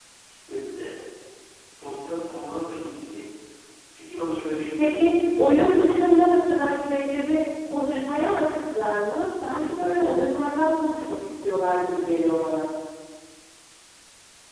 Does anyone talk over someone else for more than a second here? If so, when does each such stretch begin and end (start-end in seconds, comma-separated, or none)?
4.8-6.4